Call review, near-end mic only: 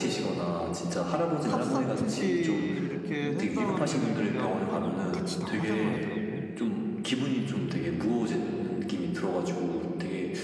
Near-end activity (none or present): present